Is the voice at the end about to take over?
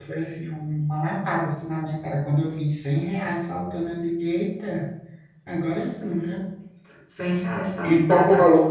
Yes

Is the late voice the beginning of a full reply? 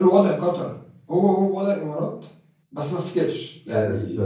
Yes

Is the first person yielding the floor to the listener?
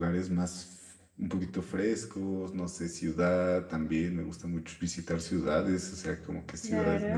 No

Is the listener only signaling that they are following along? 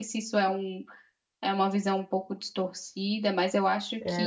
No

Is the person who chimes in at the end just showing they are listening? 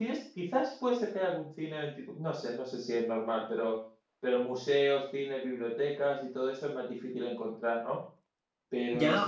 No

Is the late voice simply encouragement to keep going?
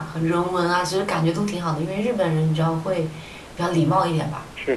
No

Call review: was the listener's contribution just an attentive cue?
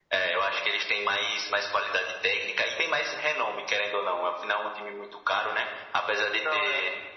Yes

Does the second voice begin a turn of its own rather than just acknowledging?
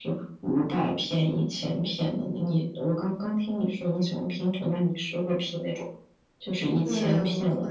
Yes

